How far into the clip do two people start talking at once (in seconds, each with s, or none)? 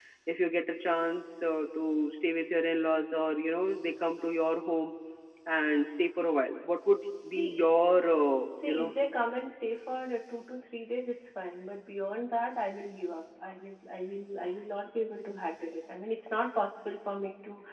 7.2 s